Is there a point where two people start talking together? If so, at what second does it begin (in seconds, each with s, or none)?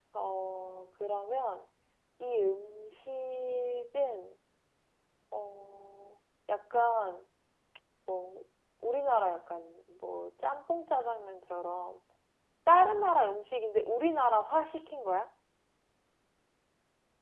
none